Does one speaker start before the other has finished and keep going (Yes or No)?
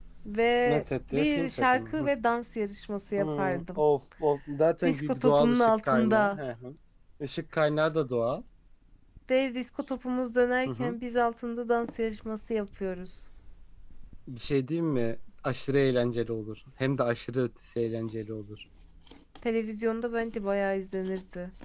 Yes